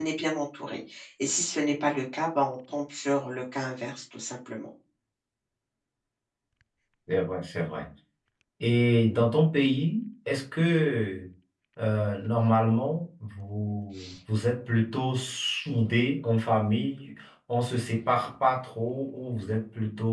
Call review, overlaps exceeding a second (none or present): none